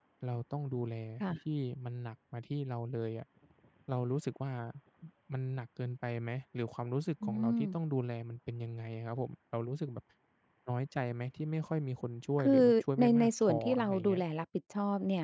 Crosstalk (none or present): present